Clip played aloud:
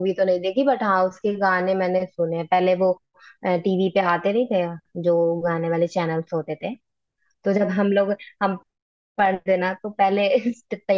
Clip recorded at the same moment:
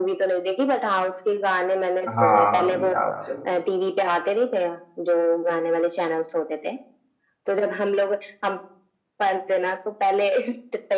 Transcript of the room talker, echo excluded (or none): हाँ भाई आपका